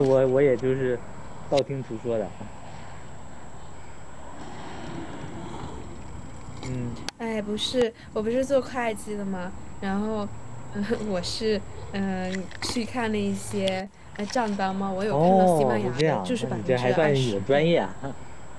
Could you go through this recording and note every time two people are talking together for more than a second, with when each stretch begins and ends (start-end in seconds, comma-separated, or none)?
15.1-17.7